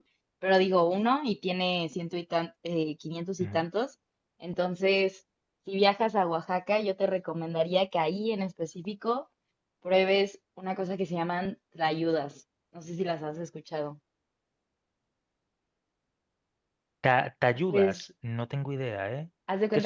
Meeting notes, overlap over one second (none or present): none